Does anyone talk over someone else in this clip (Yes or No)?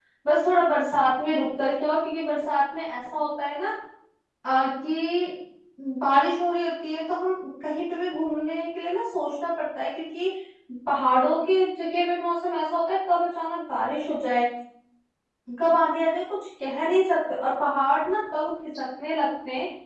No